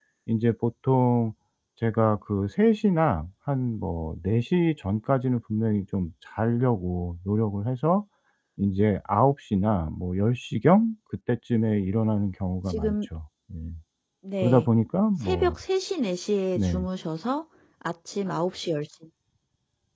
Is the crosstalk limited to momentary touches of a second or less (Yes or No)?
Yes